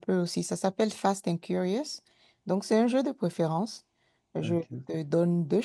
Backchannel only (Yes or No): Yes